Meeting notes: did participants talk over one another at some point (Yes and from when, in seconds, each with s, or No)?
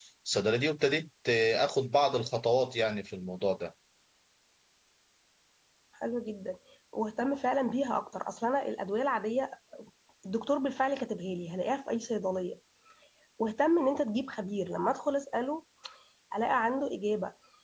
No